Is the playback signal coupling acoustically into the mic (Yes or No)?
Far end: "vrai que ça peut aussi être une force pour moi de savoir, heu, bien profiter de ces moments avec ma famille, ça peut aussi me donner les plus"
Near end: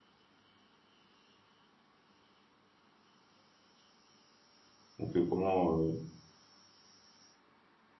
No